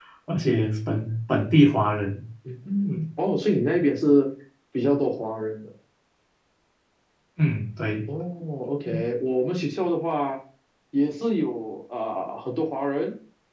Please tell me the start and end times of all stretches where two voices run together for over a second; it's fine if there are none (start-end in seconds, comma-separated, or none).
none